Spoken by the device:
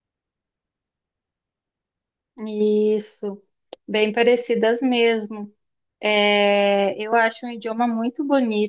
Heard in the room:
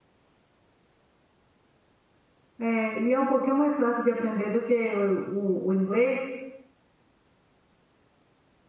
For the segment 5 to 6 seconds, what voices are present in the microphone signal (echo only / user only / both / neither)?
user only